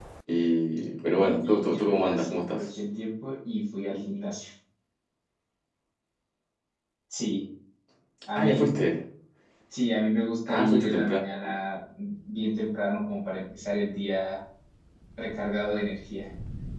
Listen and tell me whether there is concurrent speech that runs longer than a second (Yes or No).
Yes